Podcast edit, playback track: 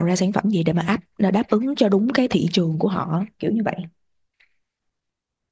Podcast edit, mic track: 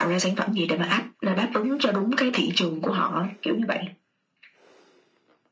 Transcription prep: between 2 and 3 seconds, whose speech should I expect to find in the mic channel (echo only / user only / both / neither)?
echo only